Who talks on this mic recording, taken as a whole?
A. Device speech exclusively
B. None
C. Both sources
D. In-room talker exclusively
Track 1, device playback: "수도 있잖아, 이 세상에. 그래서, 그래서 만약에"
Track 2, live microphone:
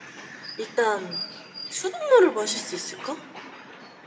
D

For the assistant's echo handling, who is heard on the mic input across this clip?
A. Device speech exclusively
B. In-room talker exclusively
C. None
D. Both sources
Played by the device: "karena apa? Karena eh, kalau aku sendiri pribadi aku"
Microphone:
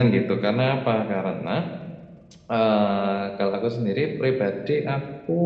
A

